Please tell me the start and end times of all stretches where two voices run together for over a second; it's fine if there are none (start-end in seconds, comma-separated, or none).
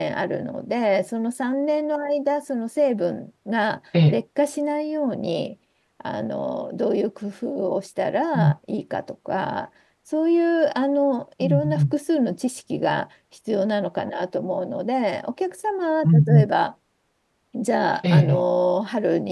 none